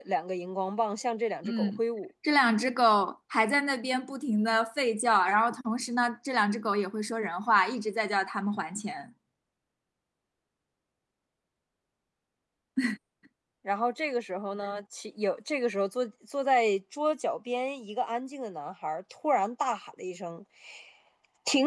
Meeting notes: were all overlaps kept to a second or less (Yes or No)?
Yes